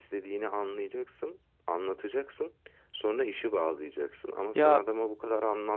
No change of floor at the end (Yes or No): Yes